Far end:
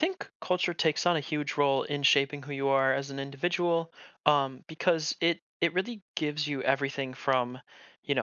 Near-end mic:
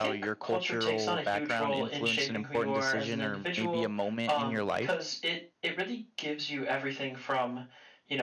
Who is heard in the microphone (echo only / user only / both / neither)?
both